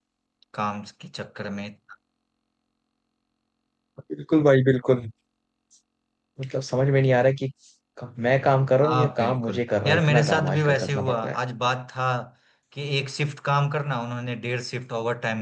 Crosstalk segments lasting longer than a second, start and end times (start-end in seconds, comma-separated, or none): 8.8-11.4